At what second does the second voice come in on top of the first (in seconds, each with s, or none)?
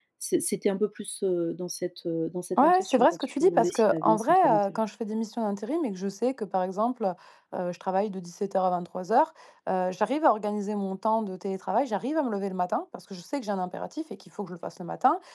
2.6 s